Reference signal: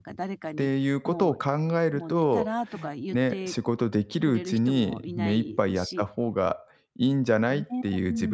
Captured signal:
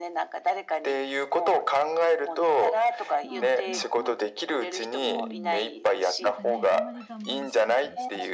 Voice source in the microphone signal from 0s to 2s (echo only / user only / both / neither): echo only